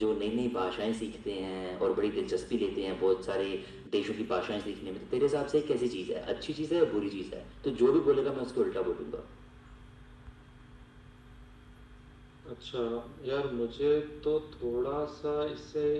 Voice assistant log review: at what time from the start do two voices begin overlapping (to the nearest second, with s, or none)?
none